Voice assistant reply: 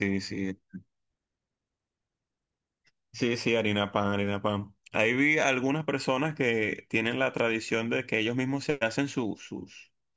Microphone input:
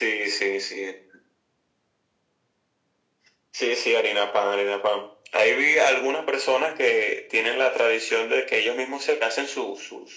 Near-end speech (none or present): none